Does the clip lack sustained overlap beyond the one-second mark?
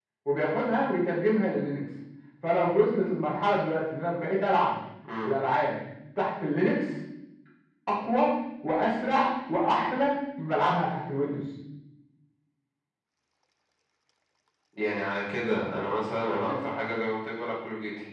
Yes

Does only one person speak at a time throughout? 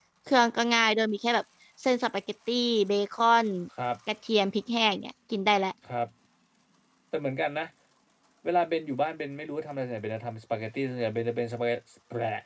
Yes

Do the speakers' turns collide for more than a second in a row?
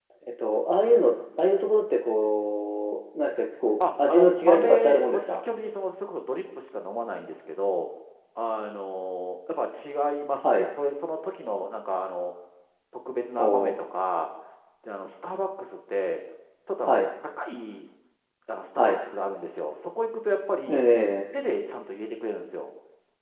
Yes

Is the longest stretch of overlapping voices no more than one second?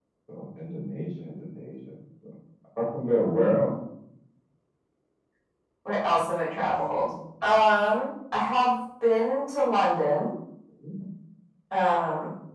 Yes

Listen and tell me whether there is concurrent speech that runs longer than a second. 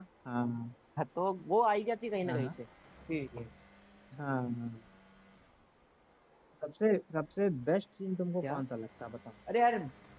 No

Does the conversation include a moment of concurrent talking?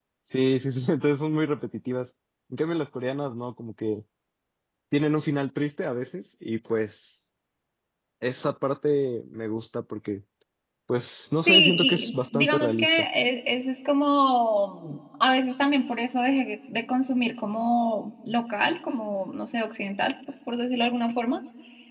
Yes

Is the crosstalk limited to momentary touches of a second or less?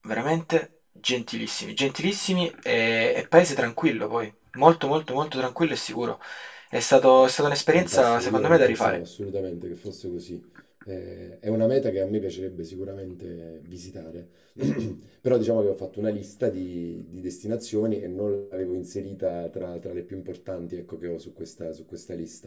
No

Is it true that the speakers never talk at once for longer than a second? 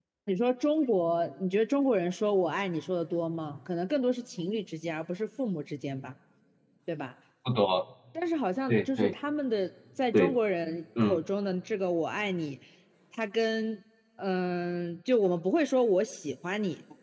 Yes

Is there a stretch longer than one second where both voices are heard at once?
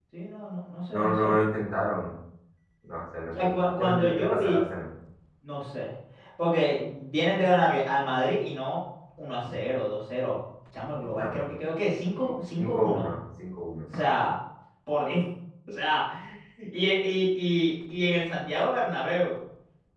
Yes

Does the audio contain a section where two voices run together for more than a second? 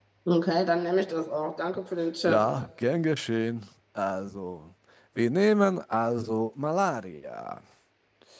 No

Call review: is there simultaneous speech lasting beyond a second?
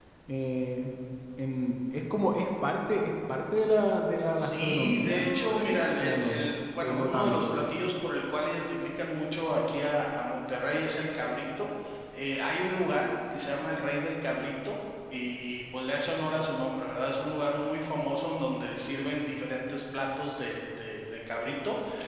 Yes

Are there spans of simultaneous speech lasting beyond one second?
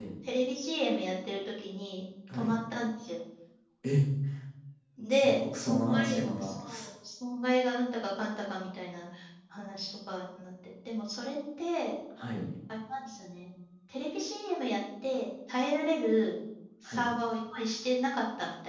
Yes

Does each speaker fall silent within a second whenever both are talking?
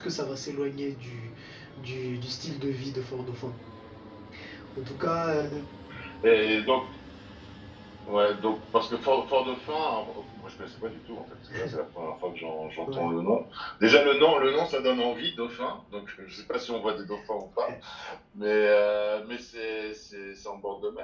Yes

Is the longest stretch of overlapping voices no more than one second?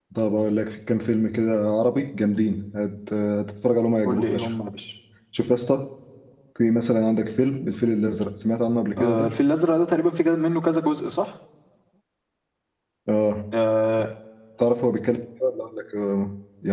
Yes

